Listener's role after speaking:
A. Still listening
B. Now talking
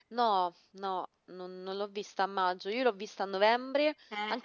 A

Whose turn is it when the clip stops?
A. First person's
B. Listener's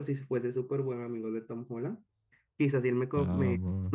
A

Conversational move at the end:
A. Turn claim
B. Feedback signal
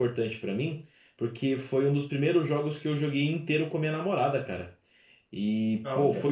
B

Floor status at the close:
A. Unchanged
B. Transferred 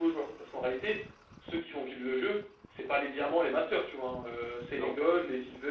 A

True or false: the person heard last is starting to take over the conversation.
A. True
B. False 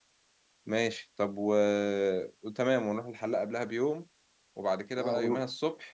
B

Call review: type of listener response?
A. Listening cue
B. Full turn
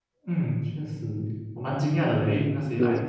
A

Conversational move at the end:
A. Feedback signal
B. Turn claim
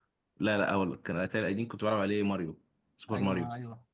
B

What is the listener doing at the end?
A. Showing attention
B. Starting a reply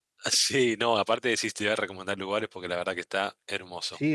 B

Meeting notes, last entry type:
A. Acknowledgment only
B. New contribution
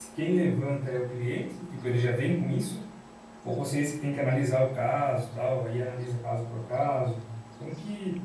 B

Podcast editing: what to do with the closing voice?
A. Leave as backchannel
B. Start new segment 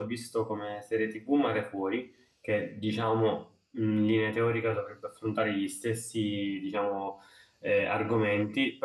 A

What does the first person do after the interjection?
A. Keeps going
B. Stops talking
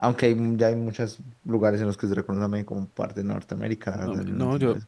B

